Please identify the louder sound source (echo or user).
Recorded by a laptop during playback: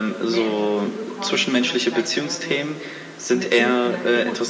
echo